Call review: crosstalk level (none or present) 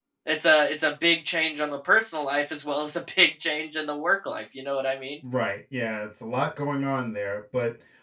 none